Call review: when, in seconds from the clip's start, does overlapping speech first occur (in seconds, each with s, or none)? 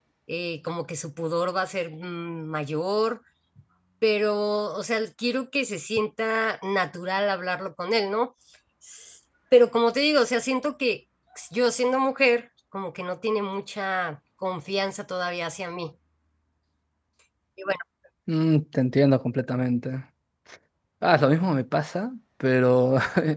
none